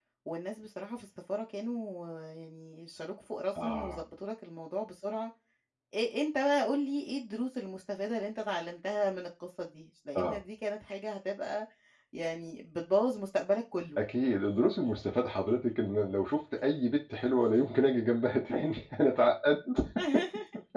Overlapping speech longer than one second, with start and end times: none

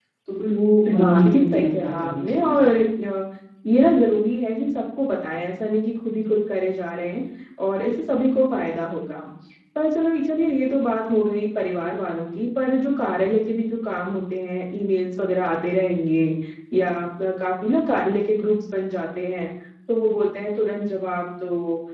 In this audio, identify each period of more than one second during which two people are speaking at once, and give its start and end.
1.0-2.6

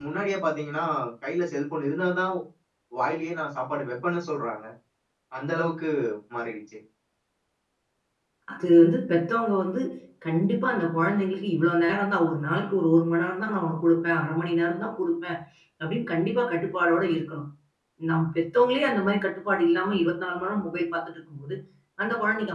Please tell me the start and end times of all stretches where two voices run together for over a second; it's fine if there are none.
none

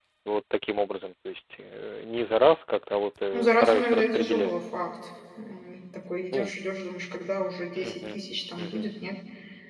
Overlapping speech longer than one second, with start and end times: 3.3-4.5

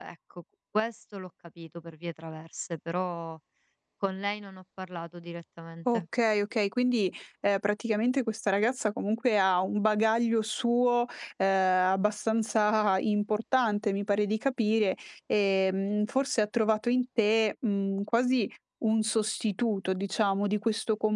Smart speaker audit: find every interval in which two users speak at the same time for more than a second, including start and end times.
none

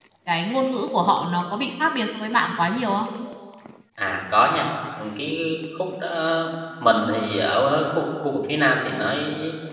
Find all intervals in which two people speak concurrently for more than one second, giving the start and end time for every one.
none

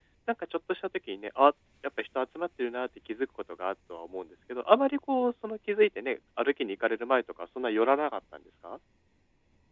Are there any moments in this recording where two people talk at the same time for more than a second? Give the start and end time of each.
none

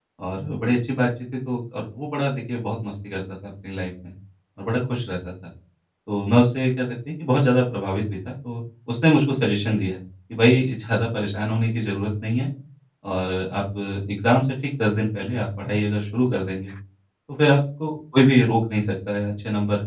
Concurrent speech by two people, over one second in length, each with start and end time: none

